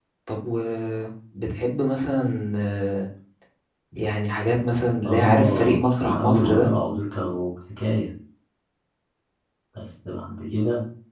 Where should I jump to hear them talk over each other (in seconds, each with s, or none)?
5.0 s